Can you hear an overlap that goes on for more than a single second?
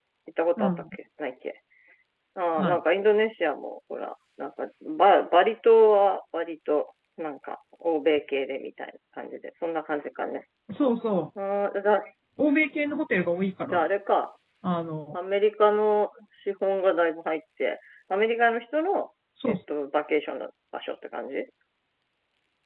No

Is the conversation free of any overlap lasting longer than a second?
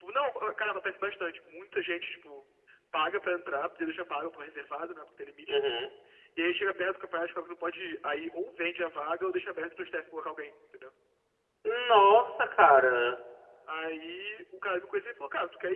Yes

